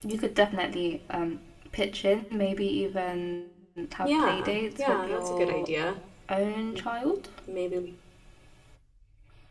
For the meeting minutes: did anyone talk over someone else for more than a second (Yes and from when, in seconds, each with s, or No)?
Yes, from 4.0 s